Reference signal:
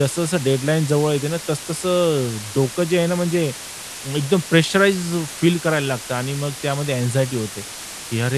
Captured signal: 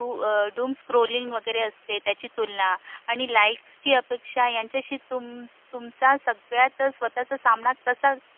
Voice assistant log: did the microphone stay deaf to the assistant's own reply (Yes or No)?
Yes